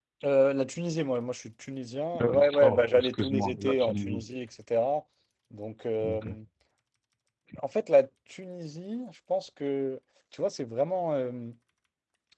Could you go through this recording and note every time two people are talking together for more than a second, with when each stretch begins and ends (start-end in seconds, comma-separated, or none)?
2.2-4.2